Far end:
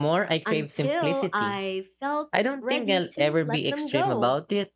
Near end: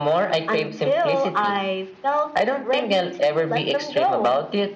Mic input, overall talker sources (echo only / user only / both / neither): echo only